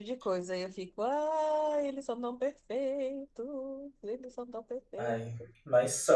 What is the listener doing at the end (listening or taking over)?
taking over